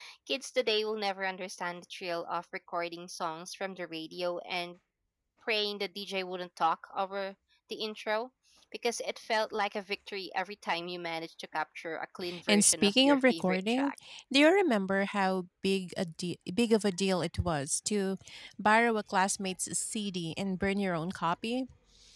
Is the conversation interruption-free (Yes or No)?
No